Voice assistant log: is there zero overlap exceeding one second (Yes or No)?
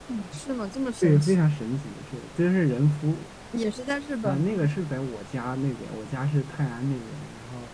Yes